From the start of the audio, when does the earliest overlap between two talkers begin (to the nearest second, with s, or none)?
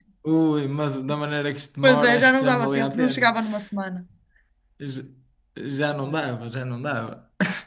2 s